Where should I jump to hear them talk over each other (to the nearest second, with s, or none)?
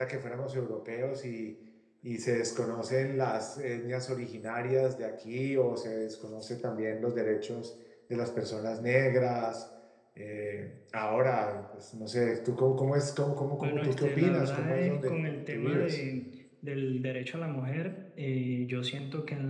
14 s